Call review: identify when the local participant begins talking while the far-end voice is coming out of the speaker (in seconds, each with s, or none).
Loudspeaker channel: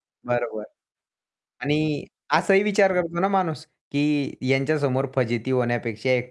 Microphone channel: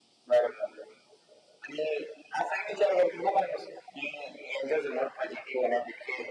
none